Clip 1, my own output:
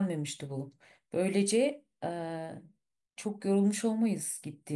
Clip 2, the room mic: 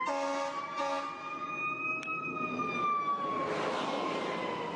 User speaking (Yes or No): No